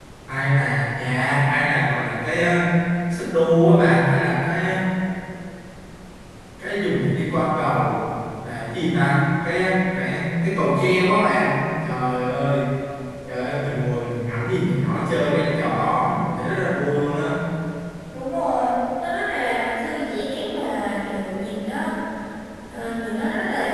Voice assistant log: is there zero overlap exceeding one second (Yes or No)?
Yes